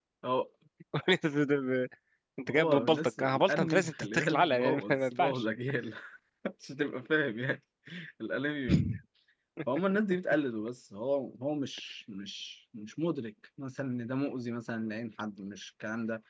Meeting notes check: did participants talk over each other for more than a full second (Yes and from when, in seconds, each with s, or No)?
Yes, from 2.5 s